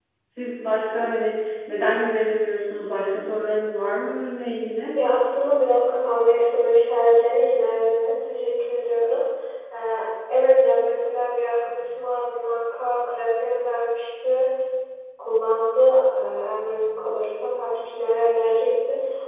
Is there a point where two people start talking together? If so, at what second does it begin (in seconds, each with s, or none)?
none